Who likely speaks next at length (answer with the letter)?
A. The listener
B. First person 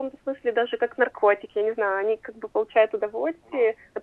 B